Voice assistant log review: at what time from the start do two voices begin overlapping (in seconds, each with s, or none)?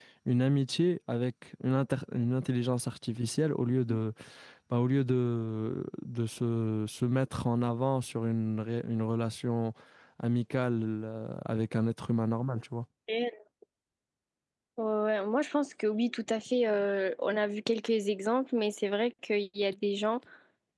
none